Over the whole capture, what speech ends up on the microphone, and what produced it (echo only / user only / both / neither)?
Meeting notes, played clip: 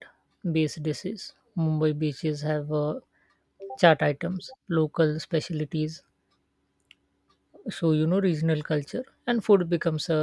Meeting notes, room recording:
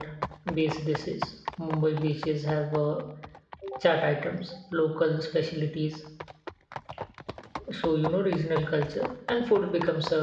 echo only